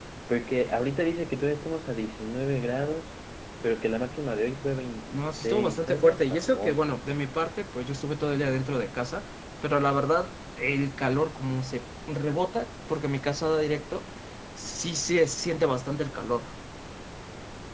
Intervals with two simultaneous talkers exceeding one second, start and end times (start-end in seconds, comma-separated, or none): 5.1-6.8